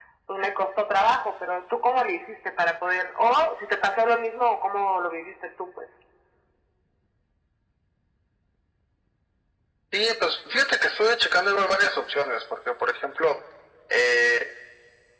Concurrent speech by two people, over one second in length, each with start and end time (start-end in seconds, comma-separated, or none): none